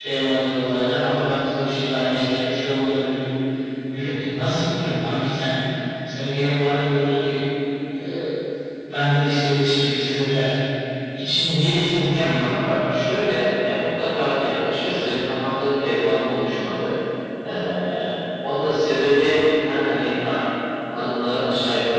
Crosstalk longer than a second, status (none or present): none